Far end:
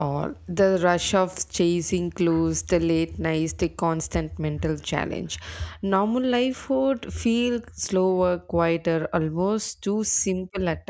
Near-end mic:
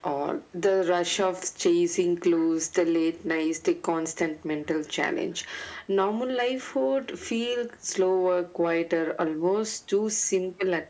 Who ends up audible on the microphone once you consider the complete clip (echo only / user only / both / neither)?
echo only